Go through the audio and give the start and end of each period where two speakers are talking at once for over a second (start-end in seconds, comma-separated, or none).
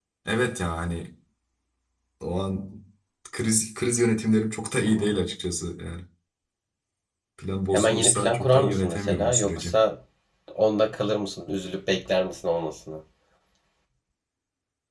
7.7-9.7